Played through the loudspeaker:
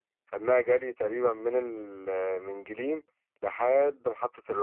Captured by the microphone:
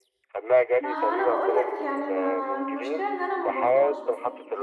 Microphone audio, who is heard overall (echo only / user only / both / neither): both